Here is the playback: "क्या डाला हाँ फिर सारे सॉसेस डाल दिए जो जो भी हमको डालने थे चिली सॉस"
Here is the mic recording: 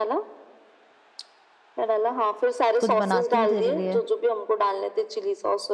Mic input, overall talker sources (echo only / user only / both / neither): both